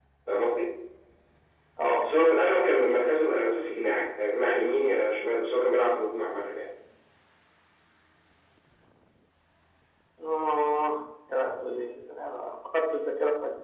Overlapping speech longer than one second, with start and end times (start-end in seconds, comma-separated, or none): none